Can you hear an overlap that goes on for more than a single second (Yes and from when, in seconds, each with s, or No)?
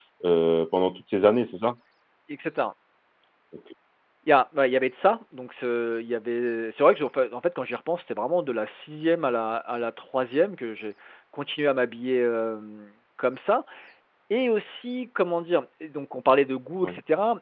No